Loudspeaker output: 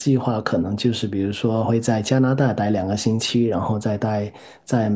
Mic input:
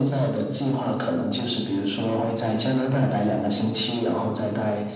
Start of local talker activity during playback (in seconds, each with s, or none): none